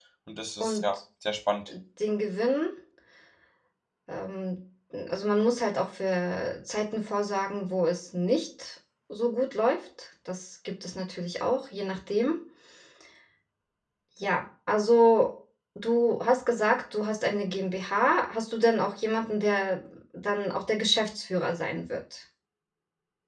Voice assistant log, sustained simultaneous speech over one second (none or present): none